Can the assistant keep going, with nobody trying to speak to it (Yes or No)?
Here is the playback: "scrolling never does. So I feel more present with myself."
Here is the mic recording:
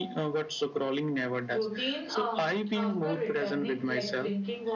No